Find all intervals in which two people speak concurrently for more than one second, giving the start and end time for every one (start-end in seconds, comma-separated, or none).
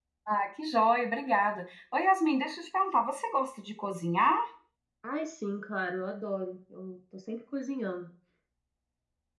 none